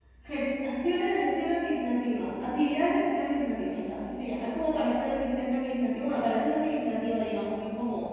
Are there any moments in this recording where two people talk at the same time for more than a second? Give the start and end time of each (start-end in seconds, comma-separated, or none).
none